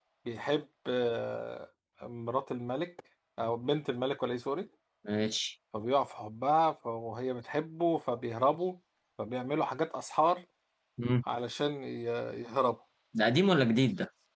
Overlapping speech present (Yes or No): No